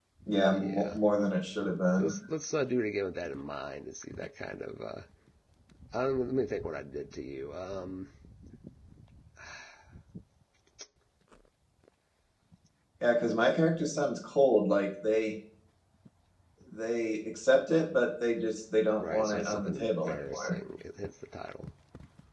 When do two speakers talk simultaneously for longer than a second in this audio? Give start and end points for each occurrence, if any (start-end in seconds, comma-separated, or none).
19.0-20.5